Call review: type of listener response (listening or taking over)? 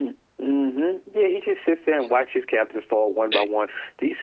listening